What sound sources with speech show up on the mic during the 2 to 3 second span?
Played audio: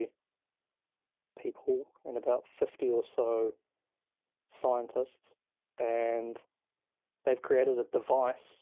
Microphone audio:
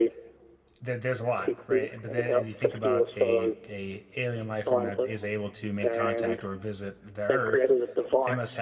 both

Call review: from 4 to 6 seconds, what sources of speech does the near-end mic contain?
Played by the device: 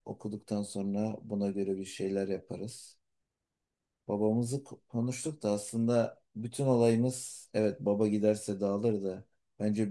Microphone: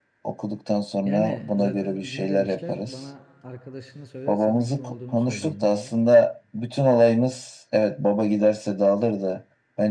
both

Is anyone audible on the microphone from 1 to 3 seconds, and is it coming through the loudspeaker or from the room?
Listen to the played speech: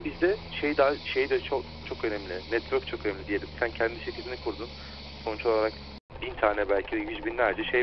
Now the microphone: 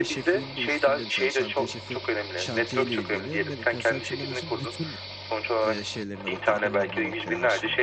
both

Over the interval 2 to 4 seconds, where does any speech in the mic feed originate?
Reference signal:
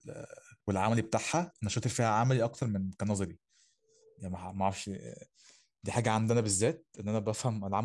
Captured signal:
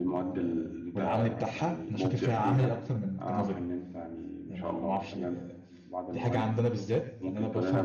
both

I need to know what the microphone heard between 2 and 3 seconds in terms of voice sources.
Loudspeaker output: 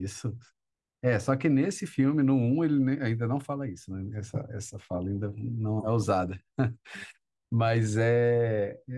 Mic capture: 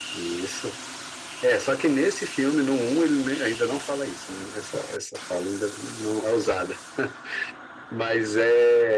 echo only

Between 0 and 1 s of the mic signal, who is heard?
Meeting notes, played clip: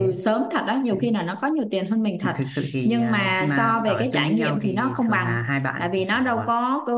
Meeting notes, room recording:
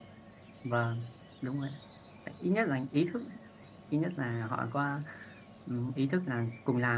user only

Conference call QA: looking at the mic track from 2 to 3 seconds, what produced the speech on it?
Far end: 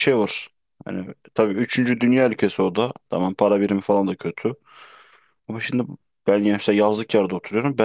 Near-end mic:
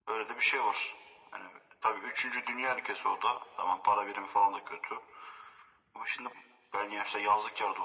echo only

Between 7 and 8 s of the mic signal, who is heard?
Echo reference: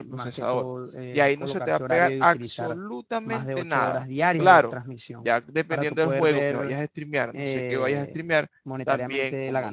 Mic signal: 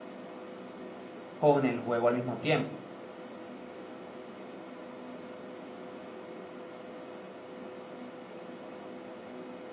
neither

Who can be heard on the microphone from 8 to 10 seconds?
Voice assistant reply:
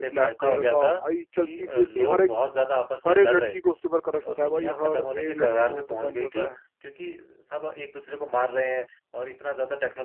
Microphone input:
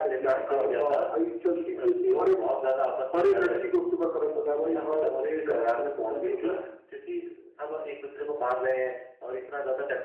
echo only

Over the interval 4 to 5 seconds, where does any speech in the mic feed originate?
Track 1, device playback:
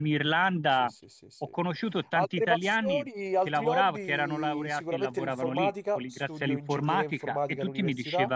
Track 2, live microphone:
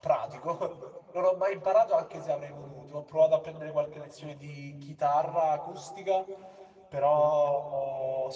user only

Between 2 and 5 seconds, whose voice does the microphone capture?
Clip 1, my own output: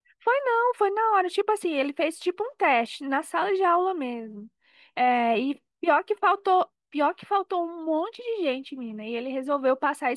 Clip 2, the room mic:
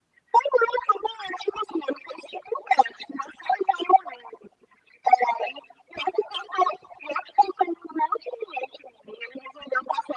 echo only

